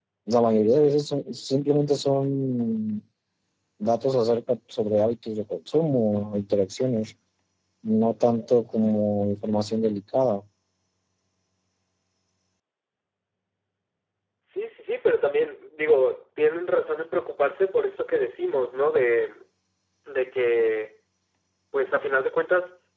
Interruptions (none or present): none